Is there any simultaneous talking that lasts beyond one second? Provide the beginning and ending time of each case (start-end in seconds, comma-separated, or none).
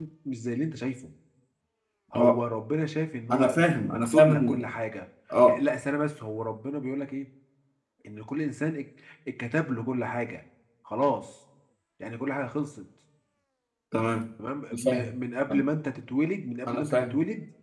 3.3-4.7